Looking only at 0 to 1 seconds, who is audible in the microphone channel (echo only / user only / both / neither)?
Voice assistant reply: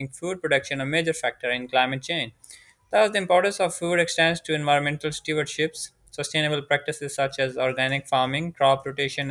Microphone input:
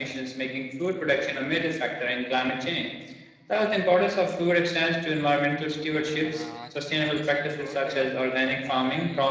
echo only